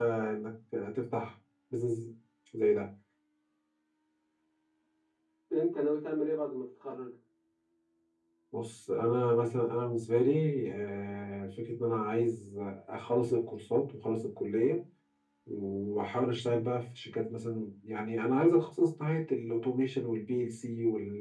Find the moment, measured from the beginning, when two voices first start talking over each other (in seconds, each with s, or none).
none